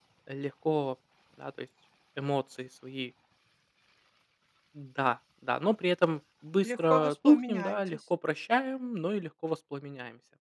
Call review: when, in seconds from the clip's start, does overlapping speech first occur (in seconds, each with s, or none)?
6.6 s